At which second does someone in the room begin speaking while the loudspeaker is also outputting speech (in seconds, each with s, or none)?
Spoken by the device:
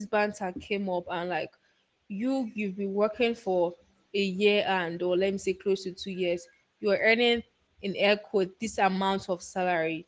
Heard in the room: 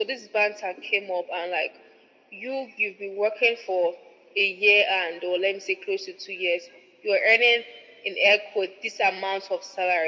none